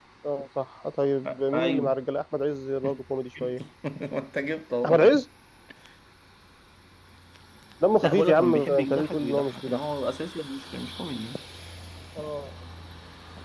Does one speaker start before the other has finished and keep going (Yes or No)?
Yes